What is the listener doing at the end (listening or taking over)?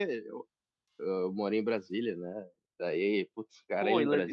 taking over